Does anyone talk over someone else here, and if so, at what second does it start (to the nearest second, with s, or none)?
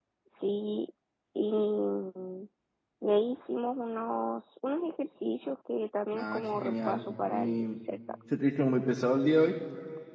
6 s